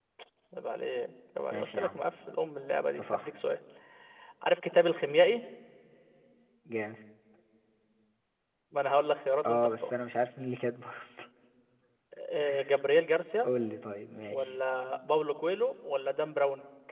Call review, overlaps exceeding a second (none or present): none